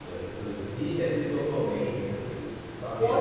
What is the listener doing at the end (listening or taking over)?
taking over